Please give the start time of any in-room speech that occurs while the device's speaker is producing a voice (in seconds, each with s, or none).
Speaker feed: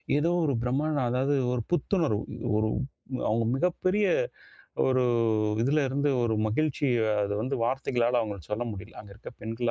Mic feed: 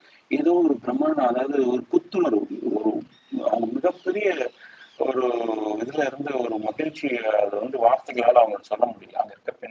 none